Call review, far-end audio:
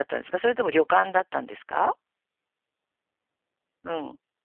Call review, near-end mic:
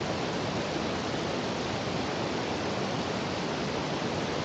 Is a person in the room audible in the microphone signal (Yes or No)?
No